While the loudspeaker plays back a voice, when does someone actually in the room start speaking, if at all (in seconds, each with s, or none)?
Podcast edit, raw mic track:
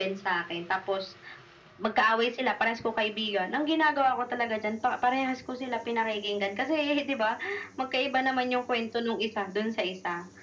none